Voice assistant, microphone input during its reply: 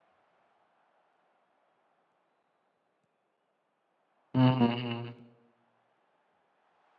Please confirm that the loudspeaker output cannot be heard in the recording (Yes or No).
Yes